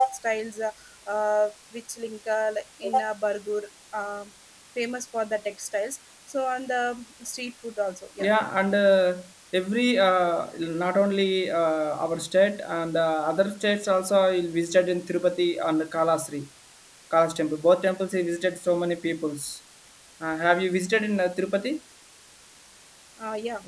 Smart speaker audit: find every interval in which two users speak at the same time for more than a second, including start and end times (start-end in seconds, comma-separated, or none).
none